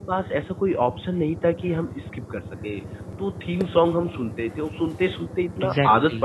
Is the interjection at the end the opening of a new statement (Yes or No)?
No